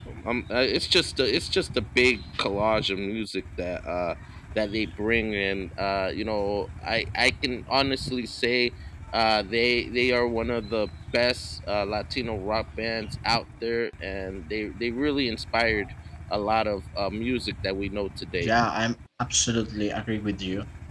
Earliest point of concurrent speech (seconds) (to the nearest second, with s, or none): none